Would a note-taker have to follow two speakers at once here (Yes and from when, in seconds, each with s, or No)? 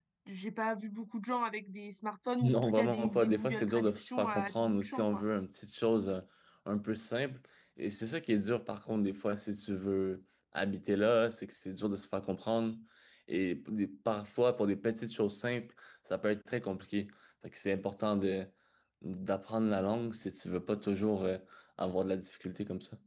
Yes, from 2.4 s